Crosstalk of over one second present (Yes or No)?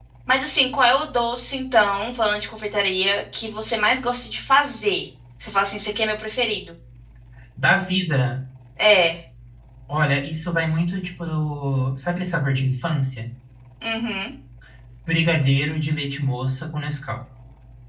No